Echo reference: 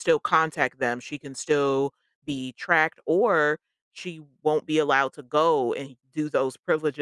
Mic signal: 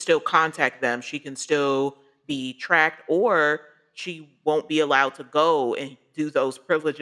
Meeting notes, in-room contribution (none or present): none